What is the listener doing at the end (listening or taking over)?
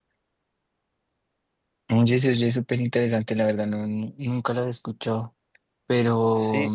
listening